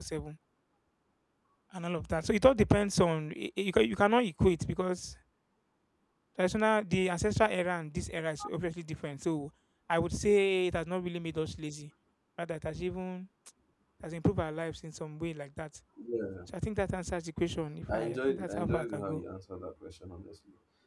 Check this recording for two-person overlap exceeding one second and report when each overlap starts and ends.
17.9-19.2

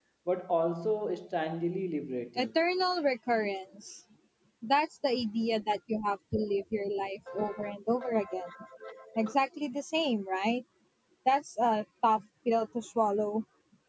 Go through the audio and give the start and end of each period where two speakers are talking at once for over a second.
none

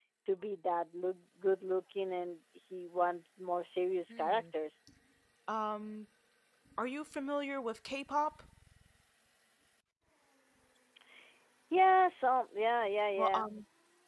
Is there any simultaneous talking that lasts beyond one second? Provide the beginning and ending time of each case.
none

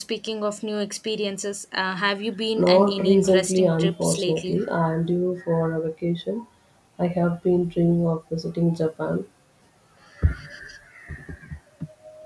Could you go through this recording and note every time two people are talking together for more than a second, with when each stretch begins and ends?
2.6-4.6

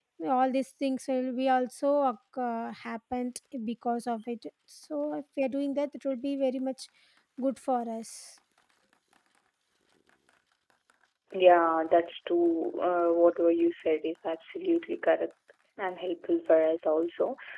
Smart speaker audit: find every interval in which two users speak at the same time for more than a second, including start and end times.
none

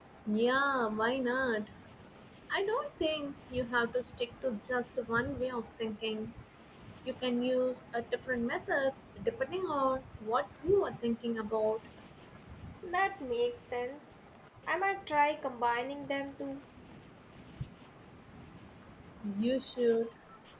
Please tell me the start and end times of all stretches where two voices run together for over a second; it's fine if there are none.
none

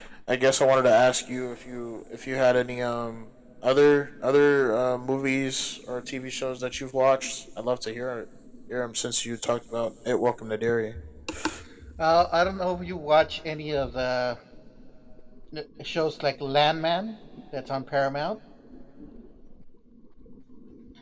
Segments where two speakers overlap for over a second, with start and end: none

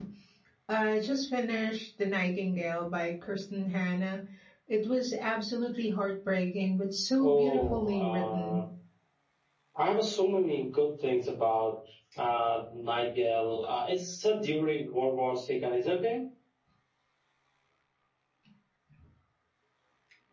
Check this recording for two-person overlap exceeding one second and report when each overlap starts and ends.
7.2-8.6

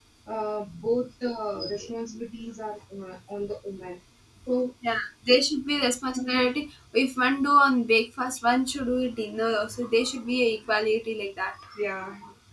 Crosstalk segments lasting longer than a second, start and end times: none

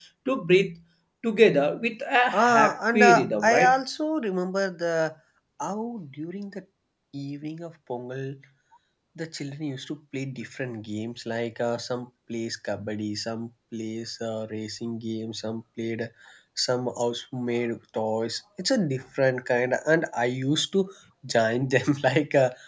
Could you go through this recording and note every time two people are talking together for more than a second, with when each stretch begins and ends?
2.3-3.7

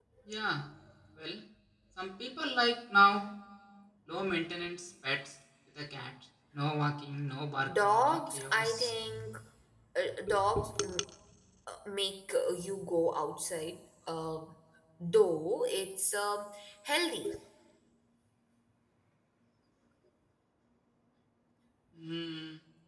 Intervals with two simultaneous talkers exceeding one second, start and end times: 7.7-8.9

